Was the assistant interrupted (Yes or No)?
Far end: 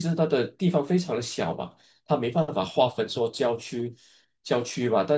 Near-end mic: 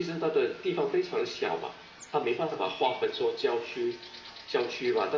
No